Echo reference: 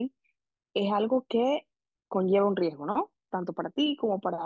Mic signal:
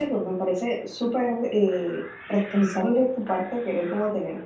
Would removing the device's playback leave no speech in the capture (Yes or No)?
No